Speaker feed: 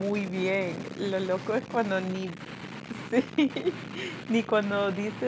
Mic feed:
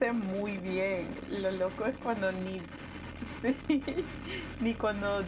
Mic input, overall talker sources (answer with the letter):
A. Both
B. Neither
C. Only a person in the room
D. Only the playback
D